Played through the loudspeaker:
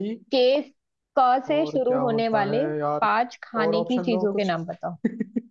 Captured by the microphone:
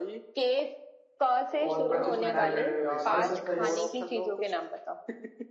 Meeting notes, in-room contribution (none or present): present